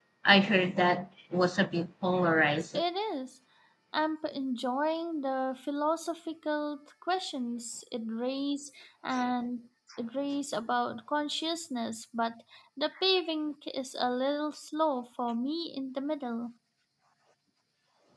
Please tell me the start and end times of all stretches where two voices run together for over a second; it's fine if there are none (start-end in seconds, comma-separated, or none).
none